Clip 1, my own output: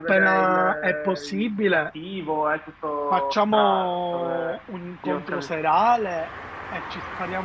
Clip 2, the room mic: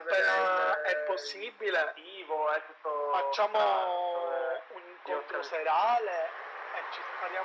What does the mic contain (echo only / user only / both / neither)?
echo only